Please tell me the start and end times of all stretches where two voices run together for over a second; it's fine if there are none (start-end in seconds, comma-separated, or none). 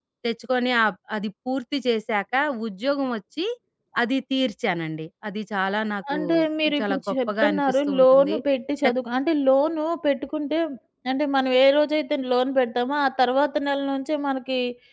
6.8-8.3